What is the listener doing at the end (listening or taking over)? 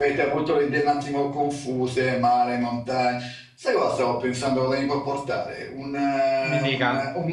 listening